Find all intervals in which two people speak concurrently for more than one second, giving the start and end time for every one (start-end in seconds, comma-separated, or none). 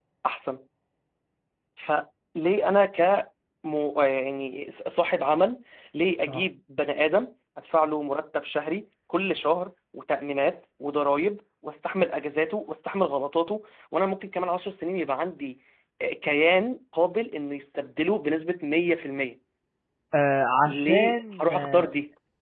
20.7-21.9